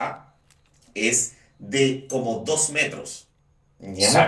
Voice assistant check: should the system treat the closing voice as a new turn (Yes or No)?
Yes